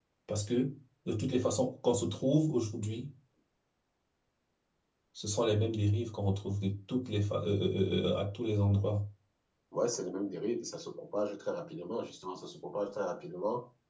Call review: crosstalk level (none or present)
none